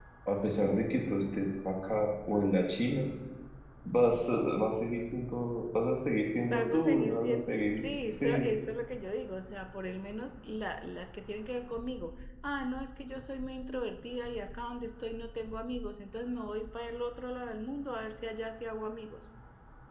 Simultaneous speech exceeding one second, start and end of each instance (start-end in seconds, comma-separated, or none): 6.5-8.5